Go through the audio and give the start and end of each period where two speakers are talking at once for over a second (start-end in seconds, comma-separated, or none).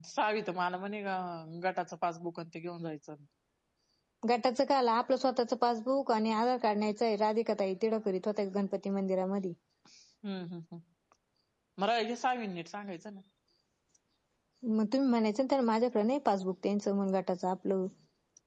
none